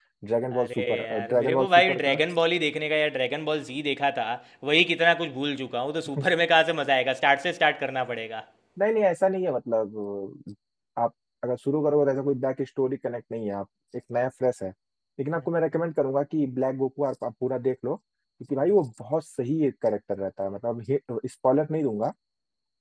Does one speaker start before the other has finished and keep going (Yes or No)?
Yes